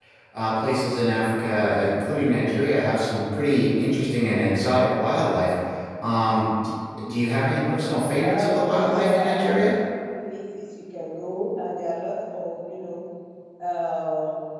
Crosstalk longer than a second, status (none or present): present